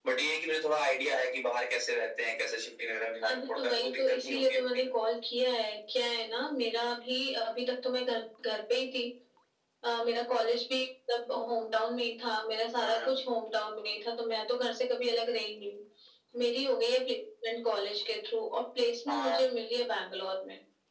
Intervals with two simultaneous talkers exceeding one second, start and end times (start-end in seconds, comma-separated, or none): 3.3-4.8